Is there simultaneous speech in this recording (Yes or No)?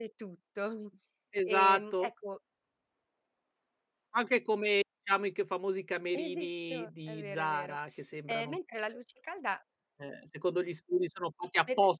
Yes